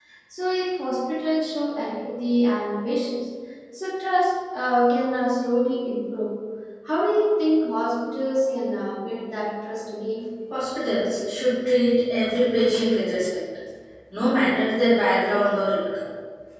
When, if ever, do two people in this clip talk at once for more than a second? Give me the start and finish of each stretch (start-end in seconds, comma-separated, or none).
none